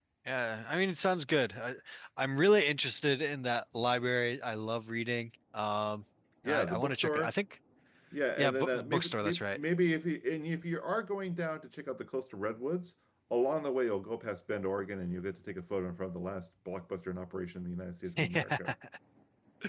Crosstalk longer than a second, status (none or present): present